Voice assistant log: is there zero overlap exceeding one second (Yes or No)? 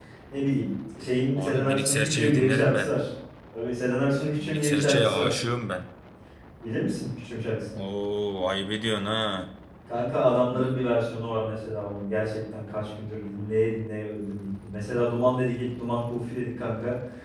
No